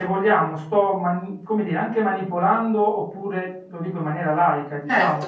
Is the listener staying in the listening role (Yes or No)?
Yes